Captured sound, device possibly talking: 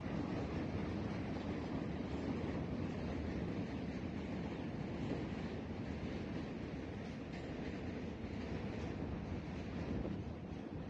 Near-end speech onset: none

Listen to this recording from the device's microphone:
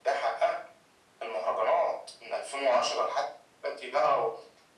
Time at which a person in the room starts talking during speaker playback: none

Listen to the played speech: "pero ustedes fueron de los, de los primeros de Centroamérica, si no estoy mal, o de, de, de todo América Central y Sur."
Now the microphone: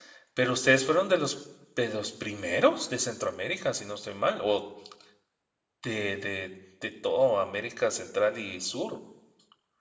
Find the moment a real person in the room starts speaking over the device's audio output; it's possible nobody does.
none

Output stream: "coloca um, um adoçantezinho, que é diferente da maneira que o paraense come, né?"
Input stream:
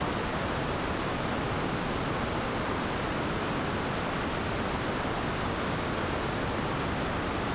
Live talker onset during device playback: none

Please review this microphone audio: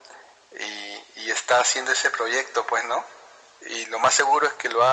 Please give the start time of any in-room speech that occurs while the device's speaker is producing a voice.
none

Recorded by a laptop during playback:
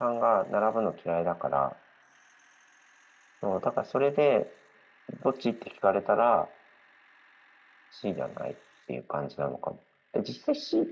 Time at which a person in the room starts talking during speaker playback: none

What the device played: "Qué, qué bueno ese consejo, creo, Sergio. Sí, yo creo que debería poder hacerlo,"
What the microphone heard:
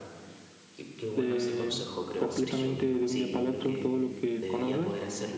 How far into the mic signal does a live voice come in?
1.1 s

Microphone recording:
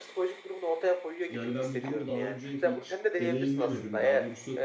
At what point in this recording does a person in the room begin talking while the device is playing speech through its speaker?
1.3 s

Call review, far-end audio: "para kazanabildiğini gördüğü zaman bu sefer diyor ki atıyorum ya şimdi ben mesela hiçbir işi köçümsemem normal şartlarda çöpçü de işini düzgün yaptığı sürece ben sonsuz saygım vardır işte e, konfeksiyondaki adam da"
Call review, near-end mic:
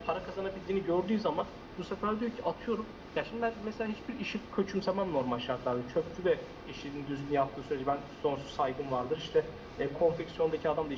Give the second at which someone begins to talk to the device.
none

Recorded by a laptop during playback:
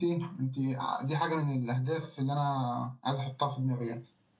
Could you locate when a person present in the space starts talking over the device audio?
none

